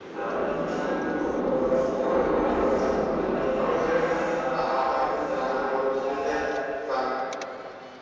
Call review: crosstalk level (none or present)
present